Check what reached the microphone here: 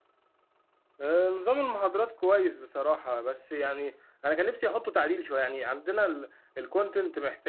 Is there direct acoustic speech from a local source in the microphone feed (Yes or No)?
Yes